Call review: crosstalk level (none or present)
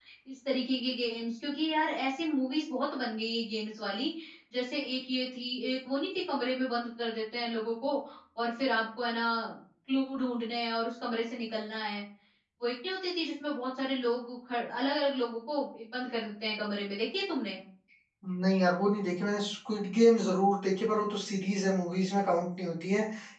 none